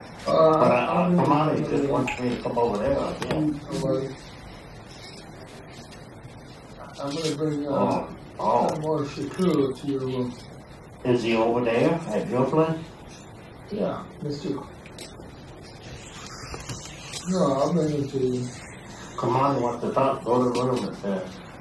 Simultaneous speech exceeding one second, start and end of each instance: 0.6-2.0

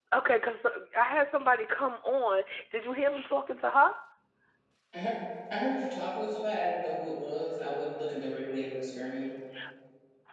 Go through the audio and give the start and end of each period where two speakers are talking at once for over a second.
none

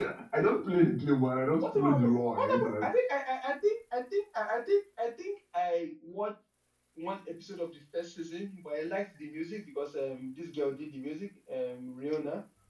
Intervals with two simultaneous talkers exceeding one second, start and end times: 1.6-2.8

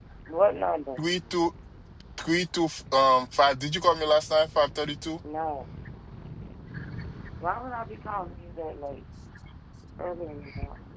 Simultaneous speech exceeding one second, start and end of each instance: none

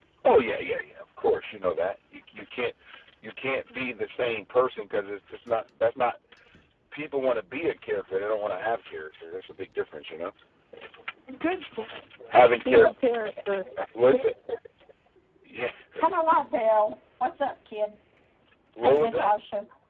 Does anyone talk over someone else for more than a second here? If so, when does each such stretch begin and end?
none

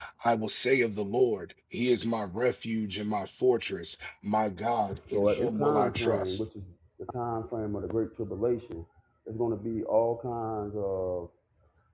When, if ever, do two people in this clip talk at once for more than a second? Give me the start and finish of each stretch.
5.1-6.4

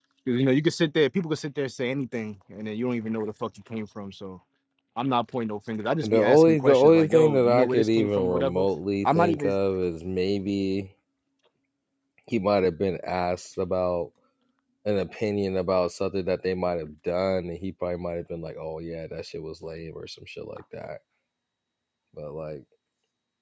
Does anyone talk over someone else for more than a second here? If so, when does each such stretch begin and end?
6.0-8.7

